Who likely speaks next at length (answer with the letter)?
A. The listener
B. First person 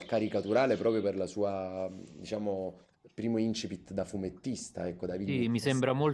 A